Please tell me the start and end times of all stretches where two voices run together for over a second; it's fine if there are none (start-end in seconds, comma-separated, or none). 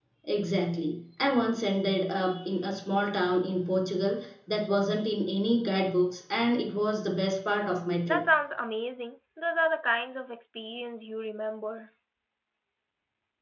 none